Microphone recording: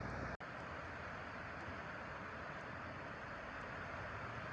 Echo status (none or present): none